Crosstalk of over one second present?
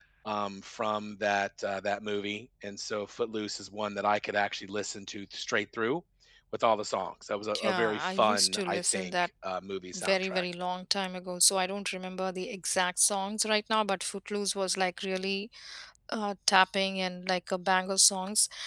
Yes, from 7.6 s

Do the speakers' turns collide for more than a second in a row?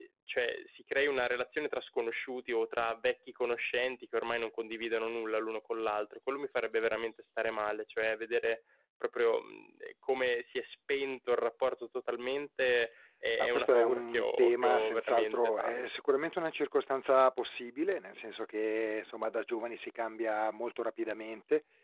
Yes, from 13.4 s

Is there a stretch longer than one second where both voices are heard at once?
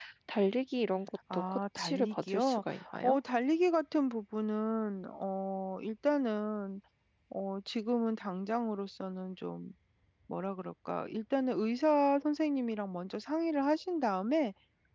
Yes, from 1.3 s

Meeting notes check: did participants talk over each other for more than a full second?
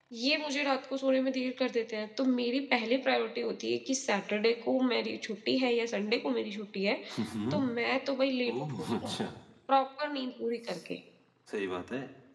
No

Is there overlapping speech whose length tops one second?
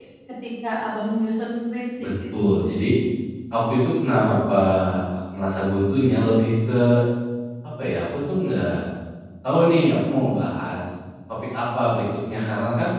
No

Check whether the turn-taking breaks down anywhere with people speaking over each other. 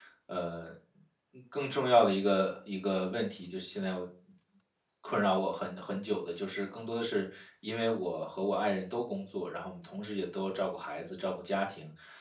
No

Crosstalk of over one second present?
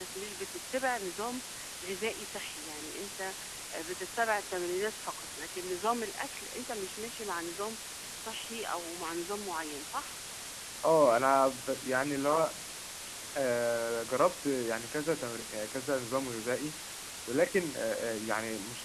No

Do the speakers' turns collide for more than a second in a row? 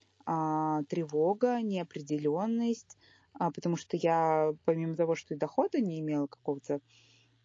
No

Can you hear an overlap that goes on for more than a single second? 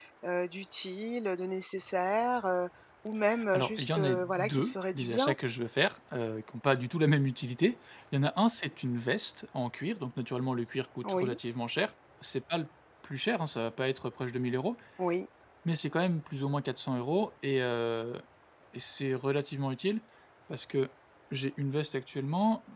Yes, from 3.5 s

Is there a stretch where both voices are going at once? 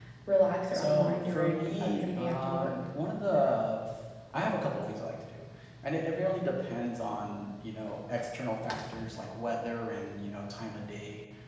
Yes, from 0.7 s

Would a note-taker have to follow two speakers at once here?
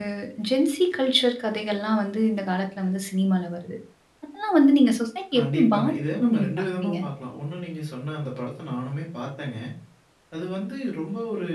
Yes, from 5.3 s

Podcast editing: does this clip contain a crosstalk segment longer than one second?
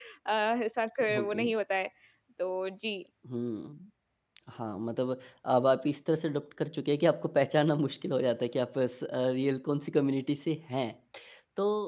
No

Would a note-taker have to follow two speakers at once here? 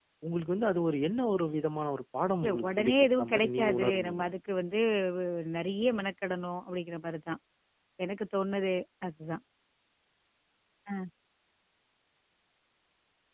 Yes, from 2.4 s

